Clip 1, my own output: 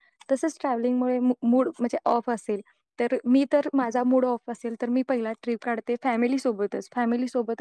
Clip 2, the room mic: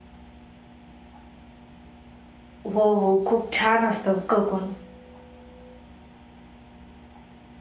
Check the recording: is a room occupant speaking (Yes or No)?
Yes